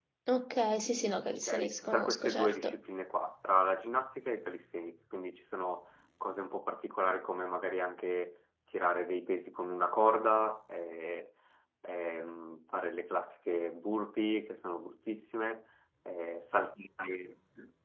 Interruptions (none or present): present